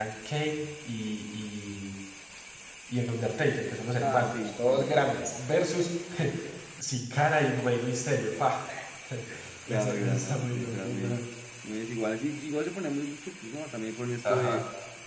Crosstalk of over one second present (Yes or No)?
Yes